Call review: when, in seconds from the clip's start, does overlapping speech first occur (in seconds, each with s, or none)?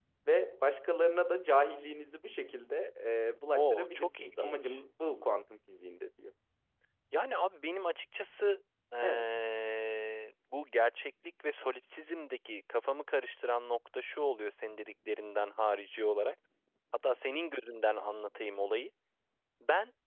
3.5 s